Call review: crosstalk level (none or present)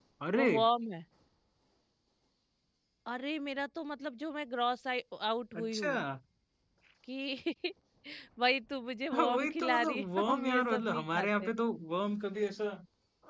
present